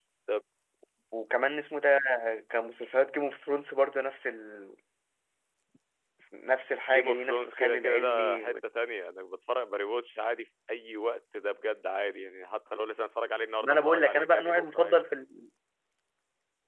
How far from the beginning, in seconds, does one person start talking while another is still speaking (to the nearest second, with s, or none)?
7 s